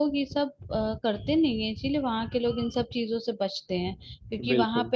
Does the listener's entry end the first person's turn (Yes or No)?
No